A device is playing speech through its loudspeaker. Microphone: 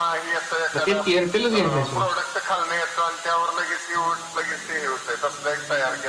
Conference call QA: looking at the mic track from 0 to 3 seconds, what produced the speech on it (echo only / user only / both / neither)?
both